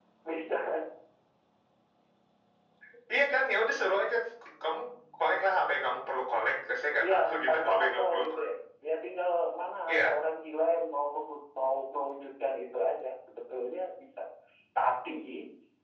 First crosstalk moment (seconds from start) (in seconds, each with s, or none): 7.0 s